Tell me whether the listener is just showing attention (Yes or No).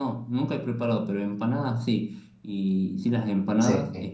Yes